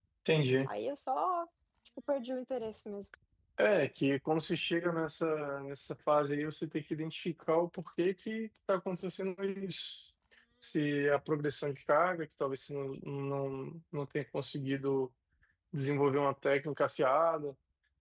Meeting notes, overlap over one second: none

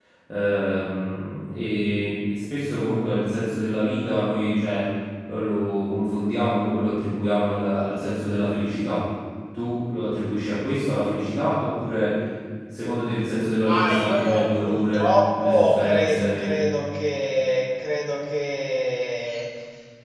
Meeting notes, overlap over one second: present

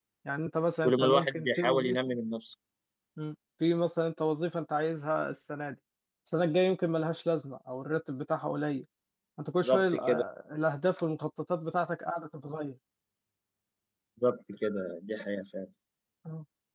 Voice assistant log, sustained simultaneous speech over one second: present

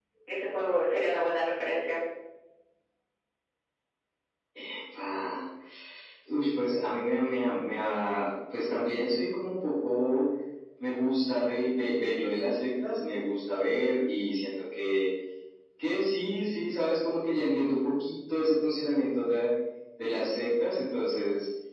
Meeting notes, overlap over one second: none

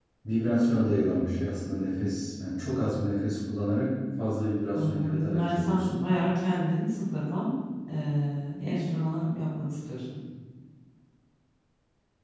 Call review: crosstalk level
present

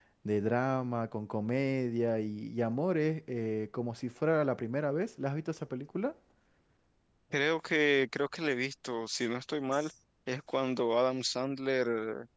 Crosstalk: none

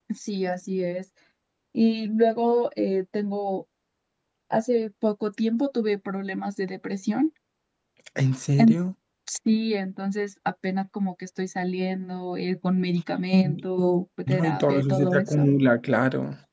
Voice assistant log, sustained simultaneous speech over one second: present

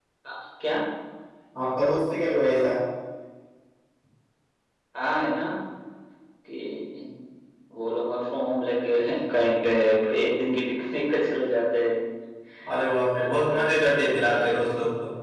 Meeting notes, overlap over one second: present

